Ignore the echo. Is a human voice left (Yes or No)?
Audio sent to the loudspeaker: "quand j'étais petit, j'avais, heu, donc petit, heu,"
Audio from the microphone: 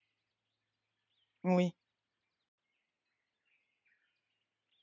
Yes